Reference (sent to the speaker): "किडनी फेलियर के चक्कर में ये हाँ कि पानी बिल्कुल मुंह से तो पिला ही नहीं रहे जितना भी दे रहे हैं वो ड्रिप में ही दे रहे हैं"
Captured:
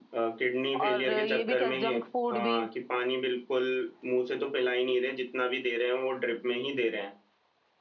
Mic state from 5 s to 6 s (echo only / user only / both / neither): echo only